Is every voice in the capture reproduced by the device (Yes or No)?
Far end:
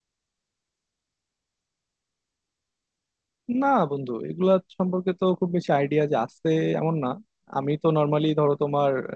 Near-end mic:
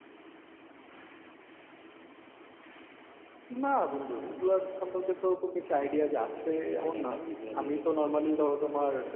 No